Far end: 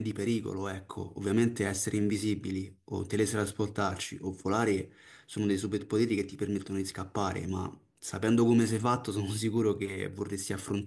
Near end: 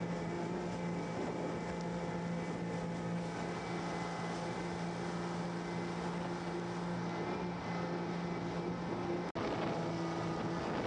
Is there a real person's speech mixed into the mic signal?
No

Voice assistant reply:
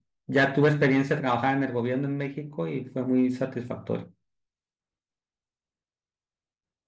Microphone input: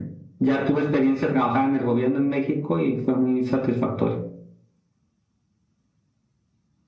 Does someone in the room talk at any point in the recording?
No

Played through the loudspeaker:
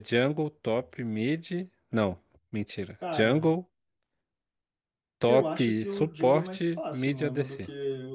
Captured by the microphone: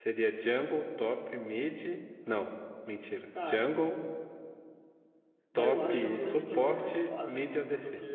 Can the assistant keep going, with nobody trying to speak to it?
No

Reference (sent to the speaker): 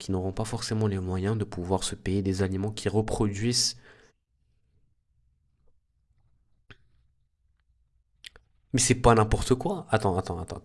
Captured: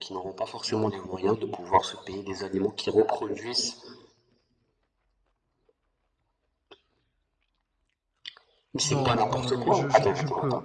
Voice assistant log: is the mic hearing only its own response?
No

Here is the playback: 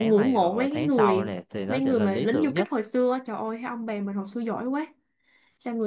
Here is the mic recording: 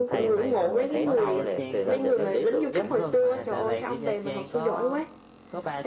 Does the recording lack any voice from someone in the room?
No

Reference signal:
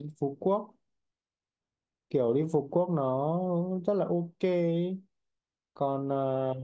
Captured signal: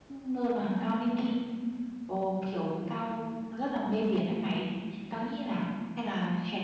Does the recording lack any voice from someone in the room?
No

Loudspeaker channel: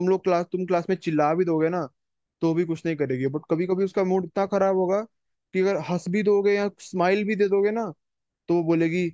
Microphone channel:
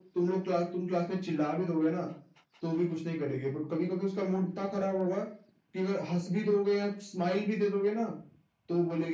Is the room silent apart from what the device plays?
Yes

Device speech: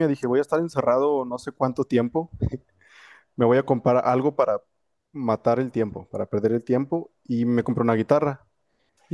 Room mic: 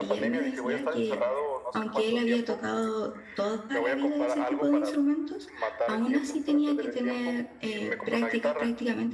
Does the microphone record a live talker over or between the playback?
Yes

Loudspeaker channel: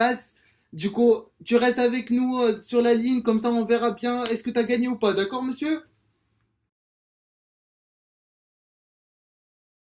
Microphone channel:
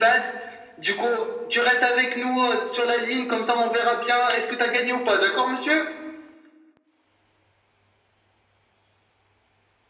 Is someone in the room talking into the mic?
No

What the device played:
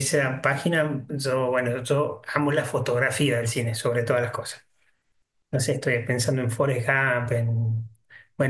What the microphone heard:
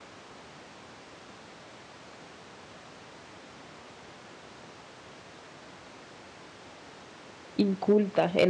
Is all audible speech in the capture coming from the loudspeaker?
No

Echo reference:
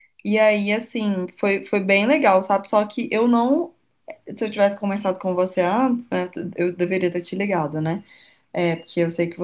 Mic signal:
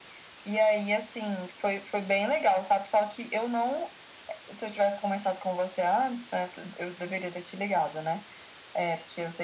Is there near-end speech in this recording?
No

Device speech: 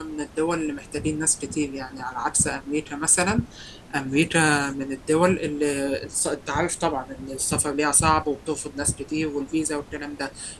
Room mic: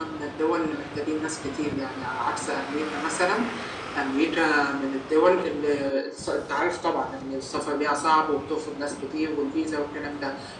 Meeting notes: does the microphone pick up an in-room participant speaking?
No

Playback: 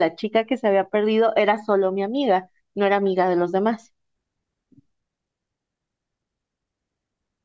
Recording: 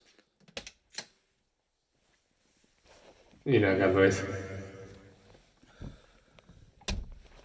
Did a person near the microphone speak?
Yes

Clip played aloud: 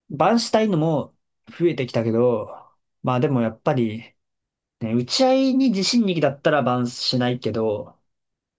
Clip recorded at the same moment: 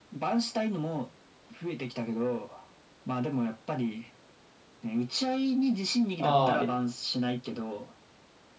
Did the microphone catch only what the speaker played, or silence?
No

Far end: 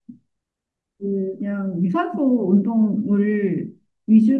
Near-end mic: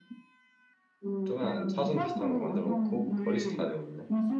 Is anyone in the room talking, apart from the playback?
Yes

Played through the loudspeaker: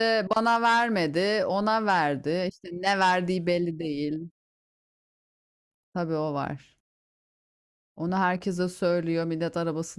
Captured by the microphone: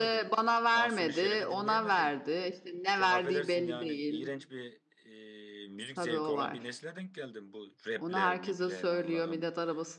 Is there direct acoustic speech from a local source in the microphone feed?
Yes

